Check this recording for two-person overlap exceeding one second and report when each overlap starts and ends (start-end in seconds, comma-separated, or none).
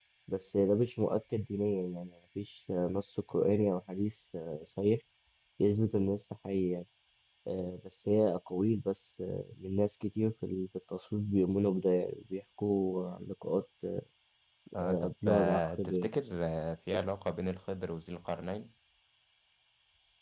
14.8-16.1